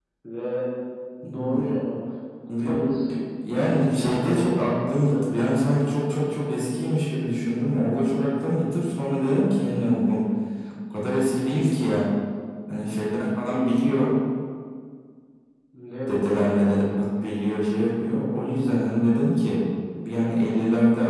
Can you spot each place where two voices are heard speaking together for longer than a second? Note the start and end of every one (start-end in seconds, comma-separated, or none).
3.8-5.2